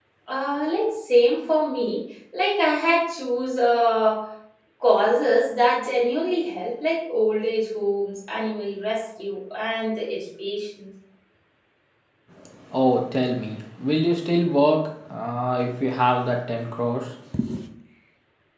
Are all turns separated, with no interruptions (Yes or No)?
Yes